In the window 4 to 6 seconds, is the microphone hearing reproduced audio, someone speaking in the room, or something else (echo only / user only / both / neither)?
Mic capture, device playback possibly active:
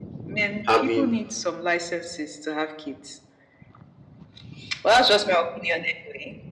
echo only